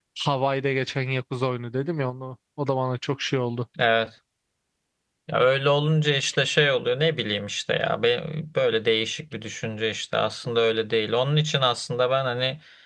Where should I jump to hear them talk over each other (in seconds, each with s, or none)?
none